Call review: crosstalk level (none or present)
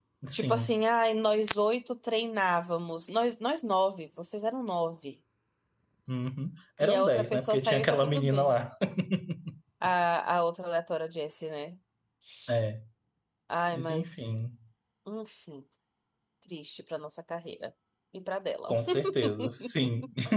present